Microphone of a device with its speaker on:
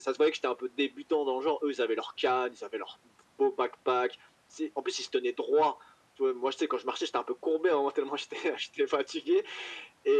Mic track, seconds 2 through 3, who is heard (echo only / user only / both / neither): echo only